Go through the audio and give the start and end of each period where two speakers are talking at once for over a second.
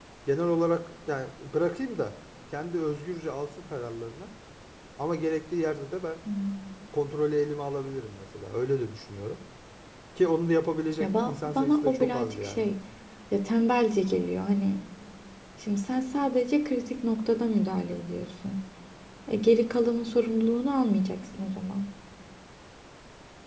11.0-12.7

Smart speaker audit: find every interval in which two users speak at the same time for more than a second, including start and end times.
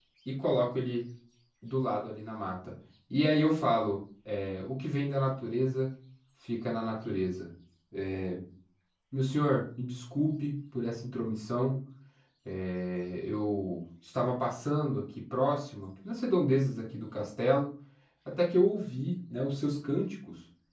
none

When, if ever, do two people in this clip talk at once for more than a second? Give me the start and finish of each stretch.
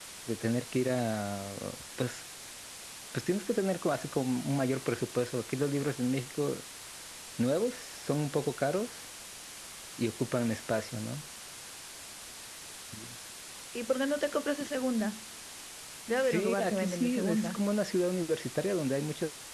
16.2-17.6

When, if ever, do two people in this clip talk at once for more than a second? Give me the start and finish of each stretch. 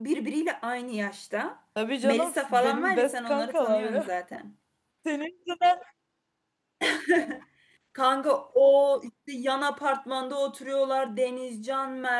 2.0-4.1

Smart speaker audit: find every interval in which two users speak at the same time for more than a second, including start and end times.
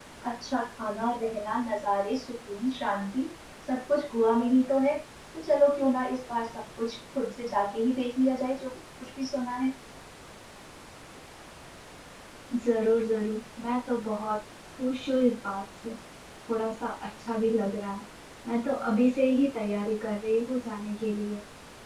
none

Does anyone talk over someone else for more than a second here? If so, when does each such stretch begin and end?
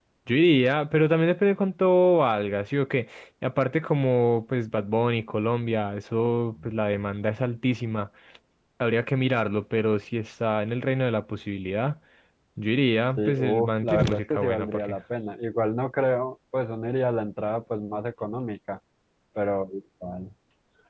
13.2-15.0

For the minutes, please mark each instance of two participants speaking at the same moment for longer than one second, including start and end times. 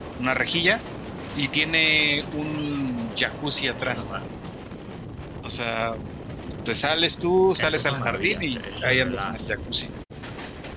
7.5-9.5

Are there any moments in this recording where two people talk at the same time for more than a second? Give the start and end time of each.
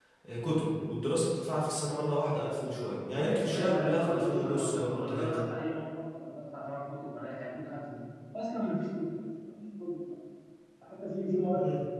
2.7-5.5

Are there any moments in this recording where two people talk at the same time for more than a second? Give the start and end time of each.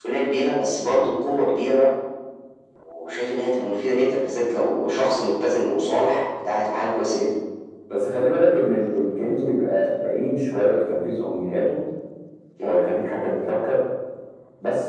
none

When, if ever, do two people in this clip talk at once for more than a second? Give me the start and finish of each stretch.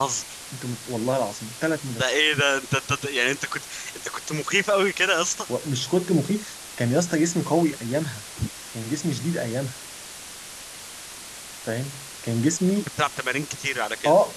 none

